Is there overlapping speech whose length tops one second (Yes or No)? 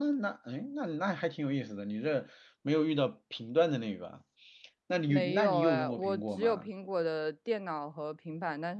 Yes